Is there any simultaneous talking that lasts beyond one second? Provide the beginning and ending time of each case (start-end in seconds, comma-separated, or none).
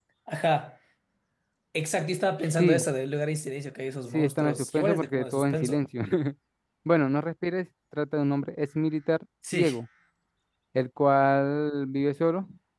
4.1-5.8